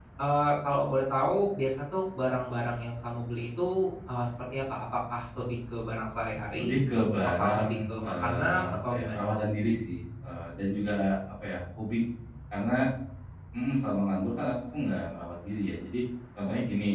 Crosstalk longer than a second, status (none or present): present